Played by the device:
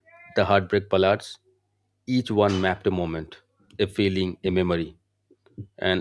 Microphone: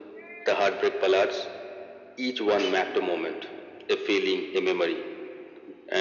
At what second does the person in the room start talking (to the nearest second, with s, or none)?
none